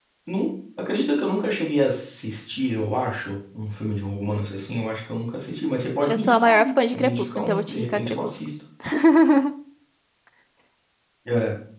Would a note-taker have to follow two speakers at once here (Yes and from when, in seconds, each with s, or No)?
Yes, from 6.1 s